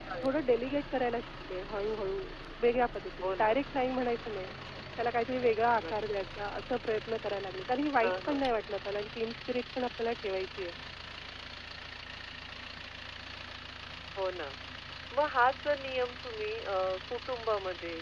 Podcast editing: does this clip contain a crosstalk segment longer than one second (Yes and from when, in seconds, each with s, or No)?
No